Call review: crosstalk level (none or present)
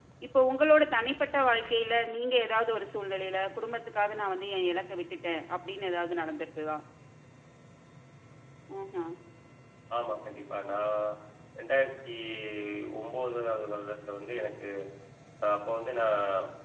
none